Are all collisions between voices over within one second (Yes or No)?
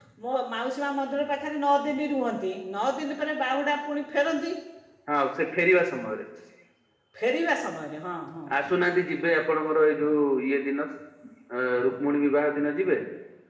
Yes